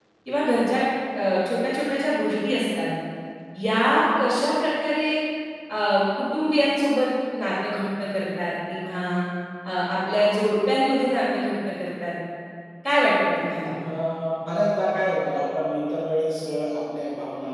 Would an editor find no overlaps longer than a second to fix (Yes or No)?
Yes